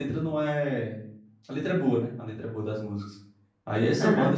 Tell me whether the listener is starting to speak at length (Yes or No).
No